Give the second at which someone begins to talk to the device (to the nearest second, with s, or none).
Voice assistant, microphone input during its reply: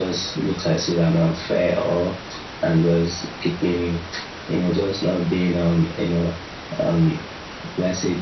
none